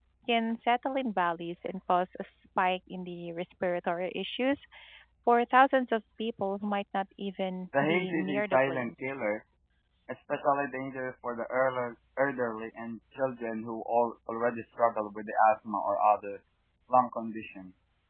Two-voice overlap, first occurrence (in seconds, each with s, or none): 7.7 s